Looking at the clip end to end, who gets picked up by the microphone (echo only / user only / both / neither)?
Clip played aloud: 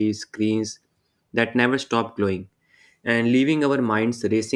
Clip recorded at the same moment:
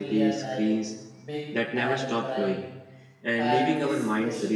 both